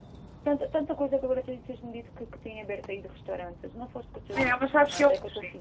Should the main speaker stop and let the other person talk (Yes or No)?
Yes